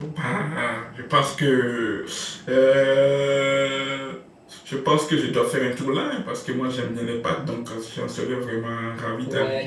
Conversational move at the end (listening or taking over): taking over